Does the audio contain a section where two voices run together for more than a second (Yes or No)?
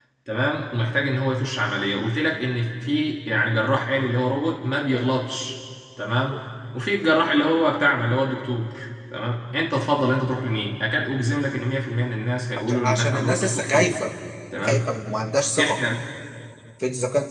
Yes